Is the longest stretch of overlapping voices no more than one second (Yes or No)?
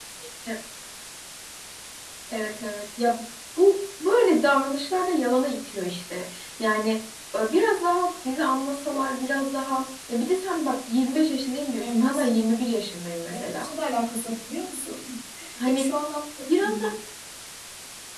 Yes